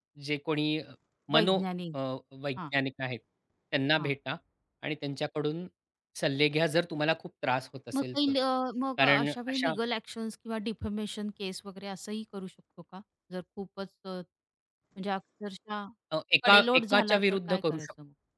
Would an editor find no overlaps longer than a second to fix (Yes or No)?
No